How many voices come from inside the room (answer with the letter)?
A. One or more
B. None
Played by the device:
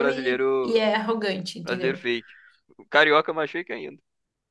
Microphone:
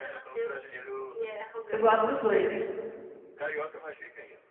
A